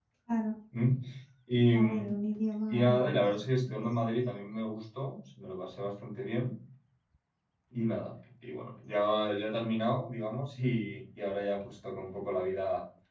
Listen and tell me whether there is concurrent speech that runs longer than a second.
Yes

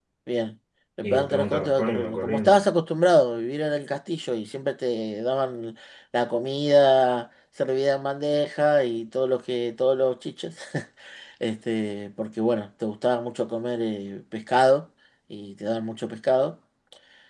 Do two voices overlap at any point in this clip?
Yes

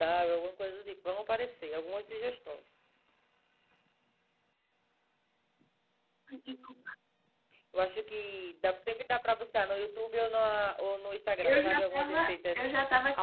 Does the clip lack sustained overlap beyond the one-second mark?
No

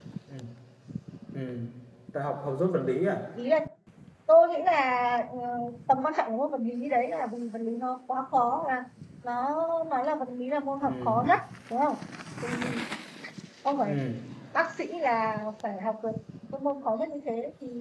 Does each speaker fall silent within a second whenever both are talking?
Yes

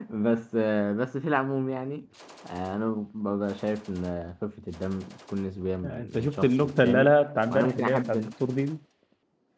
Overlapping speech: Yes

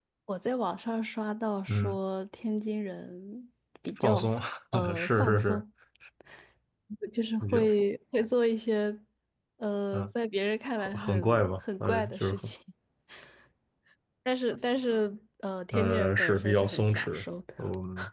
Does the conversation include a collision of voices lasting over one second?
Yes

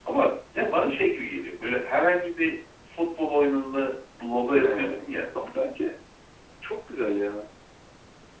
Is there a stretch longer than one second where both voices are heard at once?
No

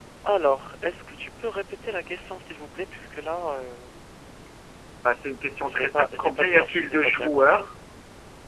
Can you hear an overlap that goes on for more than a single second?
Yes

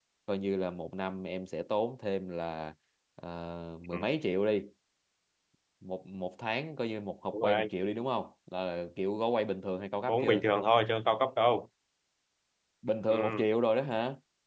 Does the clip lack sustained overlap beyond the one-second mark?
Yes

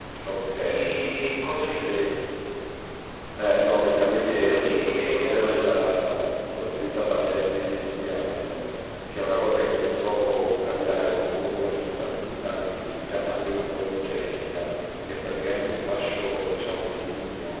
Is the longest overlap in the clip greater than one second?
Yes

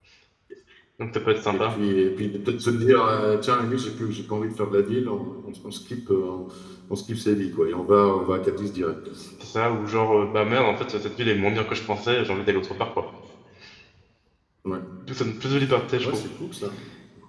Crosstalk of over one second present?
No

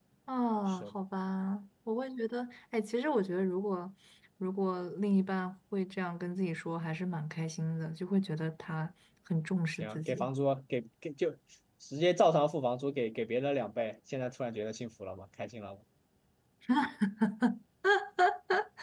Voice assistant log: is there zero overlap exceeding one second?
Yes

